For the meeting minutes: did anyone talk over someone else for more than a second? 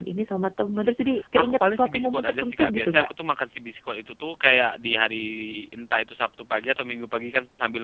Yes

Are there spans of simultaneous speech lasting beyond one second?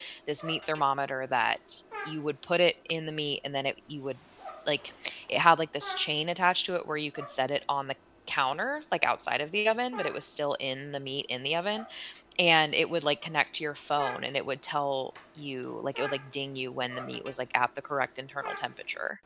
No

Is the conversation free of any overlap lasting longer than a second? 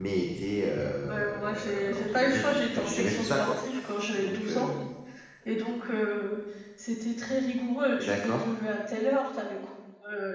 No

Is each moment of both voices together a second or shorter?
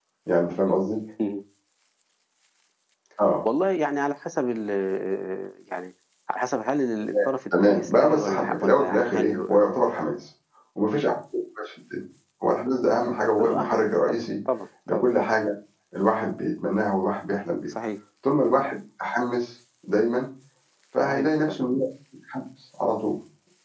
No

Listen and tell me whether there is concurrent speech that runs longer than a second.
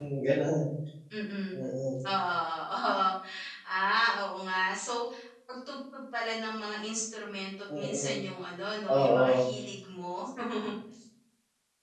No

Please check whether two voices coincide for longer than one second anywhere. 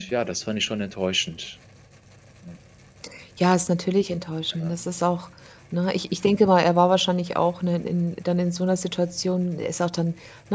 No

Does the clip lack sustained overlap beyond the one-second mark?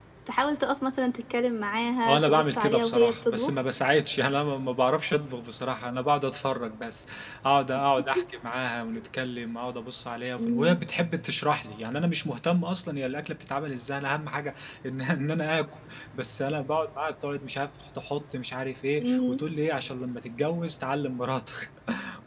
No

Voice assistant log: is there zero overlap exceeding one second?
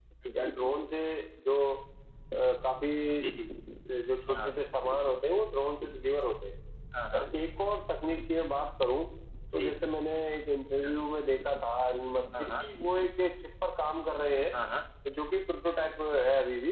Yes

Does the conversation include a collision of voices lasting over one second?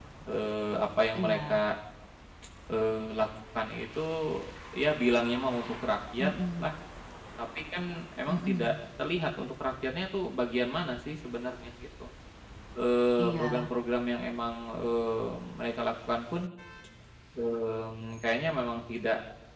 No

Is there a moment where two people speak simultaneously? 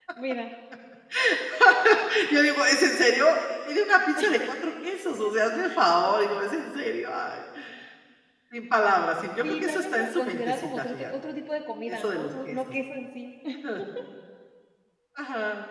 Yes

